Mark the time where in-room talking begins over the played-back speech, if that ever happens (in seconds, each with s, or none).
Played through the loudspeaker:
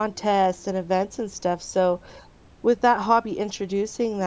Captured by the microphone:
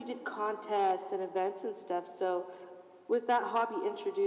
none